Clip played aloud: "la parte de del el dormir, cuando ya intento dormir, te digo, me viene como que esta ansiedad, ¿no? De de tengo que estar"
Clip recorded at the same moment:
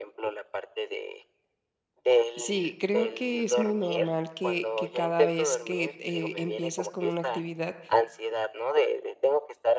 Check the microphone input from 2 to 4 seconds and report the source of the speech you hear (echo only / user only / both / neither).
both